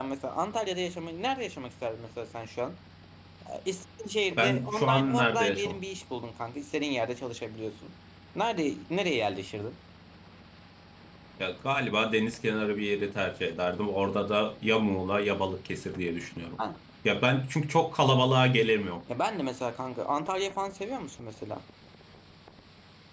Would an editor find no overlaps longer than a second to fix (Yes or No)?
No